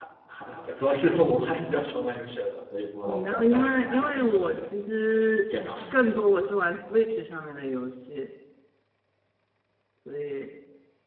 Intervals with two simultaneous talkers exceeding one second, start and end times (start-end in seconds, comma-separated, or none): 3.0-4.7